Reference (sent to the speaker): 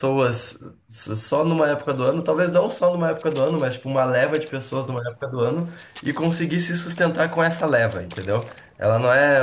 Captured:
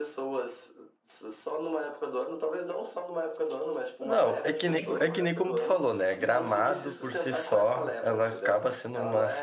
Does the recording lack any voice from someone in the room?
No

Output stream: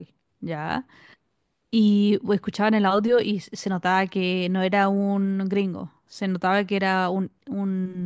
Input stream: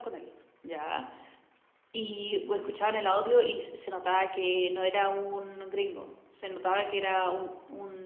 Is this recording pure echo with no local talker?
No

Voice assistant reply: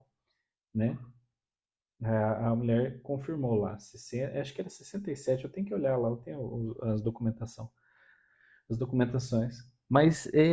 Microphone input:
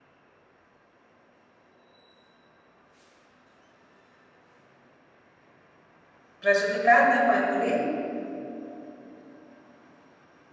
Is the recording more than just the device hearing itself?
Yes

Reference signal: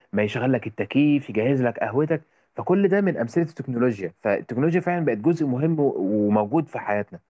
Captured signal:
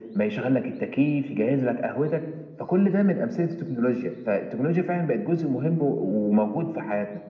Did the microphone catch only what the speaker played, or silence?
Yes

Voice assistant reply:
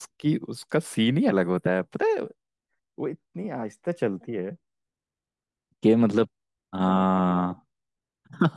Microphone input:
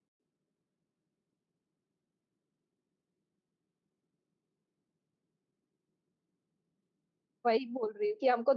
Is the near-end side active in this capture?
Yes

